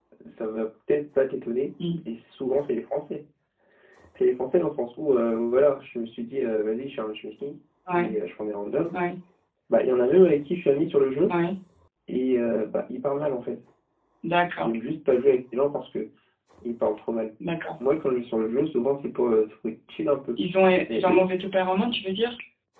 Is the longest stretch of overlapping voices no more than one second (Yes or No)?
Yes